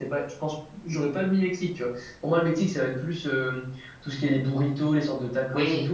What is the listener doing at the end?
listening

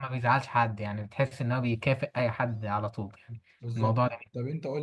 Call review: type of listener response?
taking over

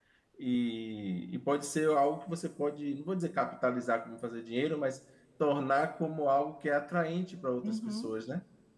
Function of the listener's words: taking over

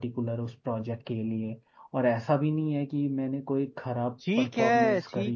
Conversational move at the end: taking over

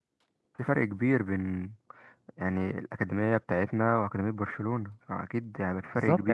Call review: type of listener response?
taking over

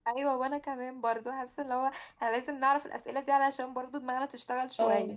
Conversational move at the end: taking over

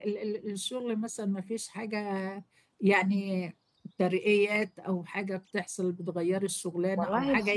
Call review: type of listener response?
listening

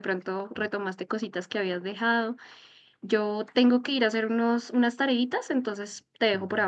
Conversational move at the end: taking over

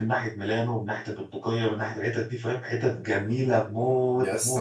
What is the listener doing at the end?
taking over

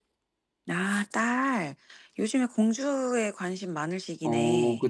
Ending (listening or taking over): taking over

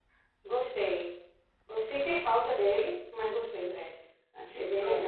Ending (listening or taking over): taking over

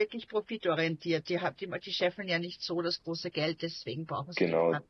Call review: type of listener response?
taking over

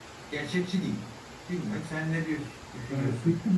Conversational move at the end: taking over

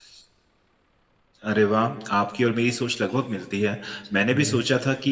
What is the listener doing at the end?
listening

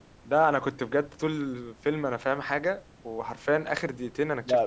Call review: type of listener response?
taking over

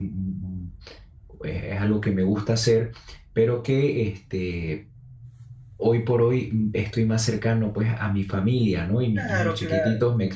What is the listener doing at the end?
listening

